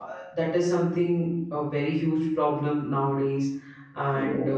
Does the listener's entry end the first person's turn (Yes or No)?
No